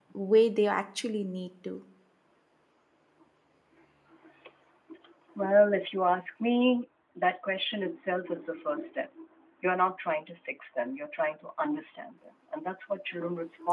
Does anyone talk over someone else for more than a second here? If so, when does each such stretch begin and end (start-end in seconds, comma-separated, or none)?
none